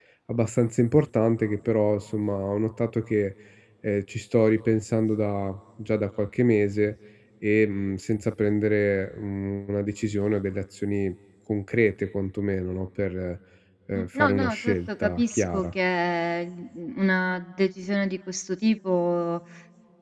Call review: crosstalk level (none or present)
present